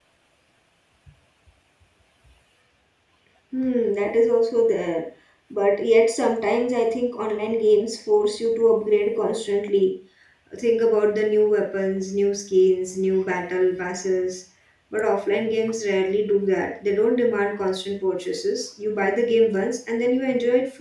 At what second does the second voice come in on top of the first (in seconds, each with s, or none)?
none